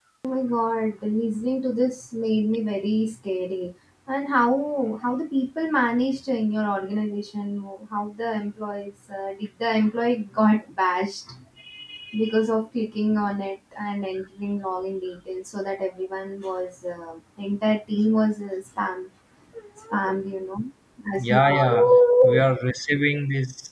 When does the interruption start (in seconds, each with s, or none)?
21.2 s